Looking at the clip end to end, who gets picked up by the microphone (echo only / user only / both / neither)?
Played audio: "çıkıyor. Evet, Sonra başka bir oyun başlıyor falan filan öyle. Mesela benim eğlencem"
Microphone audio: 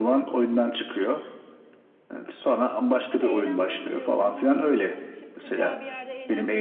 both